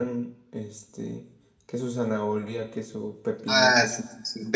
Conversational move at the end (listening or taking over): taking over